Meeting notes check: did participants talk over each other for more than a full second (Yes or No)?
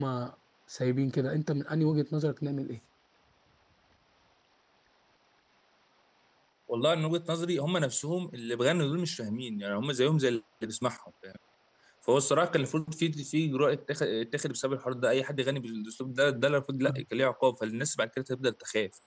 No